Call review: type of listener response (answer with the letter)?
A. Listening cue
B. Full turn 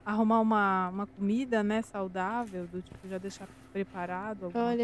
B